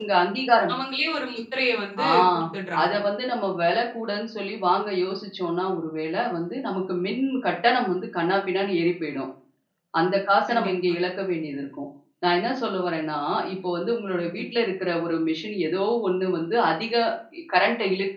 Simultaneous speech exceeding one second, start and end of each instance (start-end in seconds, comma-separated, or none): none